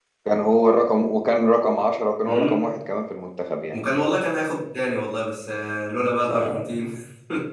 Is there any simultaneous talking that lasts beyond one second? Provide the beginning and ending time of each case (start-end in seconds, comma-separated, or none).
none